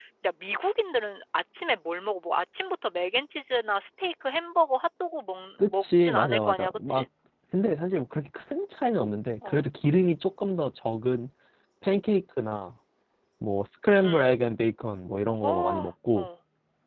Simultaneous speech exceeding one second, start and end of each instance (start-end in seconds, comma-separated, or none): 5.6-7.0